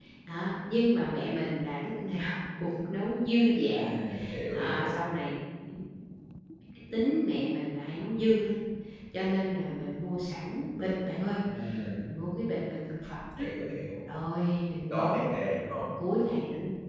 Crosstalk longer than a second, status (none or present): none